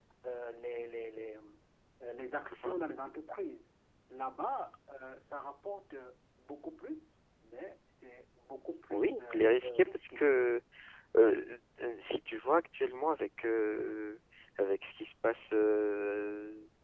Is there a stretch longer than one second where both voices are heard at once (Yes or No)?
Yes